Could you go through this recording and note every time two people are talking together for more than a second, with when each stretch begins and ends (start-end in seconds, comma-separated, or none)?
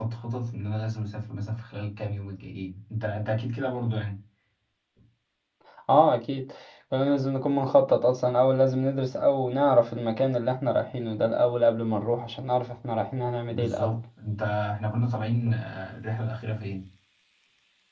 none